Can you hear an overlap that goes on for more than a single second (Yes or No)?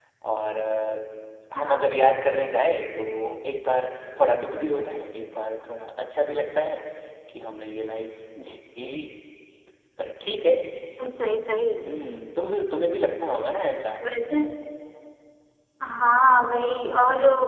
No